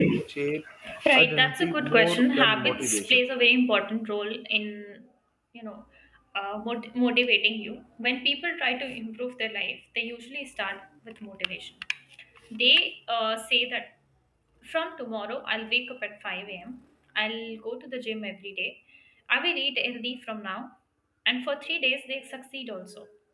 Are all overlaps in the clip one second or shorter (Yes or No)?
No